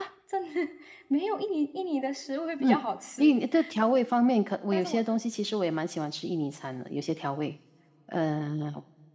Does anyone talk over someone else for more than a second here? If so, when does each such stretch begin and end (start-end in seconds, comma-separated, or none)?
none